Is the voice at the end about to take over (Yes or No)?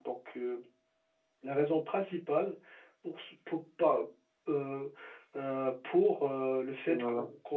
No